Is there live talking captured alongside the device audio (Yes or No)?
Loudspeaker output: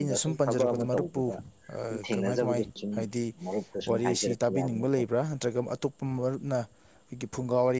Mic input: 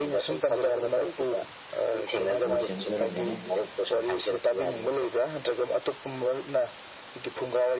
Yes